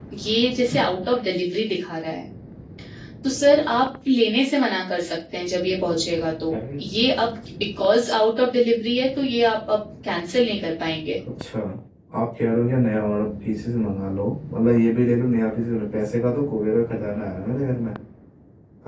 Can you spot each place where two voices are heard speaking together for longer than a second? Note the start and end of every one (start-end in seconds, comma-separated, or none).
none